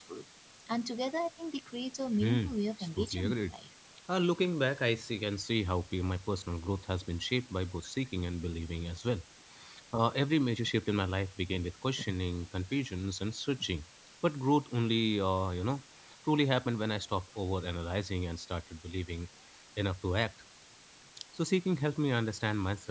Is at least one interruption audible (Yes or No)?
Yes